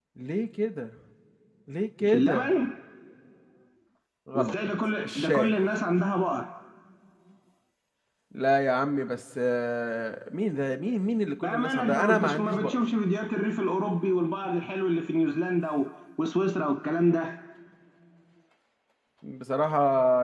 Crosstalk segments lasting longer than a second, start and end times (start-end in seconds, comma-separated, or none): 11.4-12.8